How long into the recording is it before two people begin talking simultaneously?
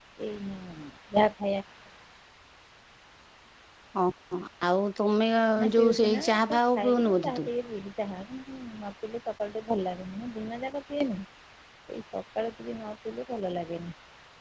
6 s

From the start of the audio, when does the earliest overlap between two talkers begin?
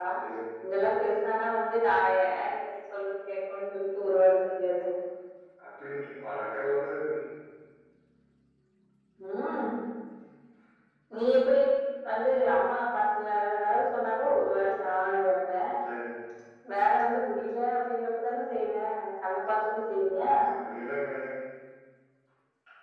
none

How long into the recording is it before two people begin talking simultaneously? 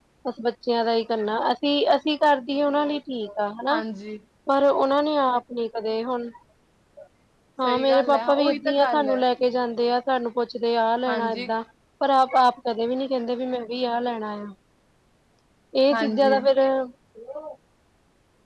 8 s

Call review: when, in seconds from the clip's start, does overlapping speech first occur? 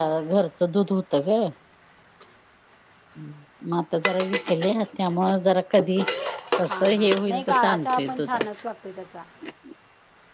7 s

